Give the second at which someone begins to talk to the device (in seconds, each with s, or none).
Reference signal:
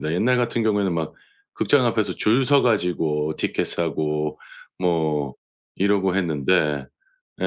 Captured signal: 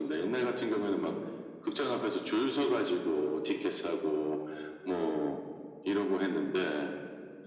none